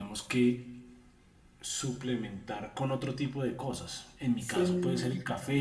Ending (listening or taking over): listening